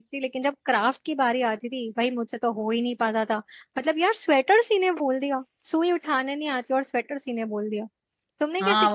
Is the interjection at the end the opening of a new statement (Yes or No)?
Yes